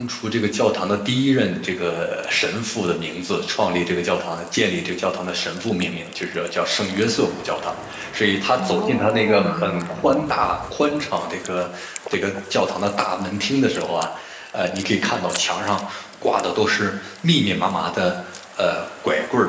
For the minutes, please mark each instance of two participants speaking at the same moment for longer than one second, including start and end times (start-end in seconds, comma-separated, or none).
8.6-10.2